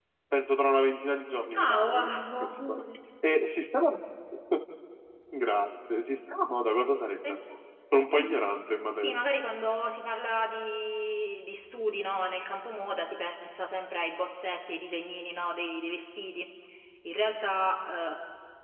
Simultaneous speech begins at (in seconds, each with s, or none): 1.5 s